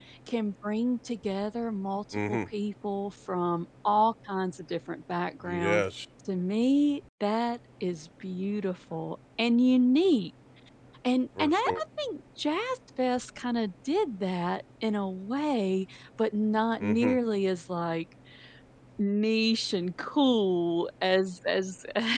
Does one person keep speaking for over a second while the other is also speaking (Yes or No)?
No